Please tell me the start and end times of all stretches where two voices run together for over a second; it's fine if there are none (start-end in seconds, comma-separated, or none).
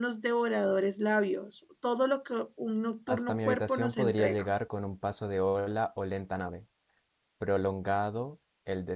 3.1-4.5